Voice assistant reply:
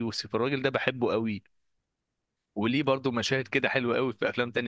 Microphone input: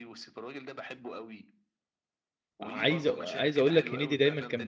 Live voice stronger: Yes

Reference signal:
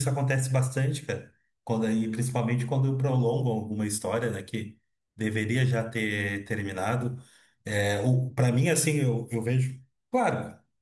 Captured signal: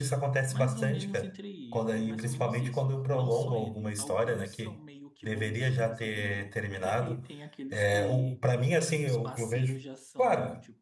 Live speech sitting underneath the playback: Yes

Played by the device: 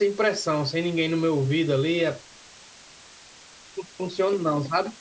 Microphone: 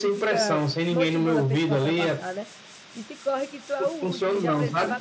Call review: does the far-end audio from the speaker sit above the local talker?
Yes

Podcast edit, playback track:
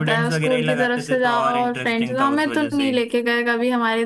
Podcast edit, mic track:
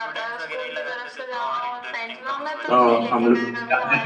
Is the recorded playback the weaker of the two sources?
Yes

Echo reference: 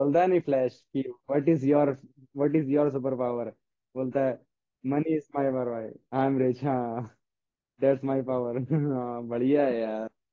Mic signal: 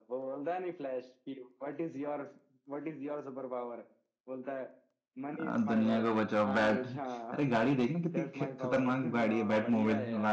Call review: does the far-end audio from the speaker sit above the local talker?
No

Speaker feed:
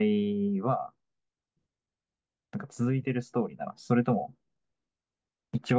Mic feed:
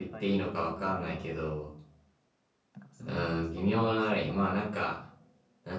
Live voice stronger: Yes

